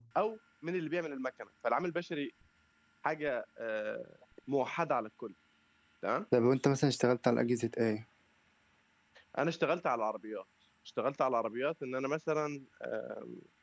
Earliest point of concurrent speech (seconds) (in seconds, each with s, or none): none